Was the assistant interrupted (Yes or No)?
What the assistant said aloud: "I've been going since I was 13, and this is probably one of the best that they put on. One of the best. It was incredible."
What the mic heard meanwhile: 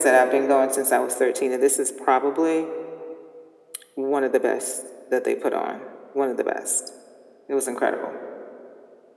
No